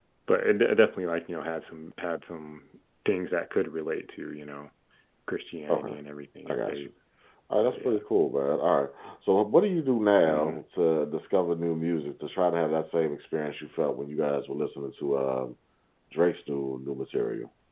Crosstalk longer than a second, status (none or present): none